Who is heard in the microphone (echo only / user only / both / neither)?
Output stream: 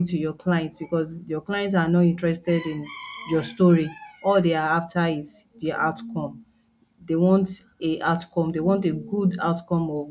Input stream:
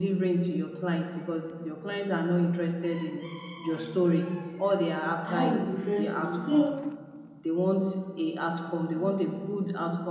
both